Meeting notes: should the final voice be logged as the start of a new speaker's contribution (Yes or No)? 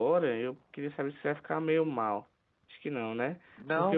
No